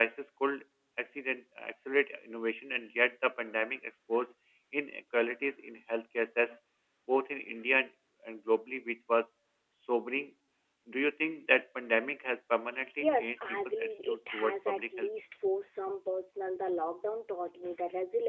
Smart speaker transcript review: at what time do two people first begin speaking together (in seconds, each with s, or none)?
13.0 s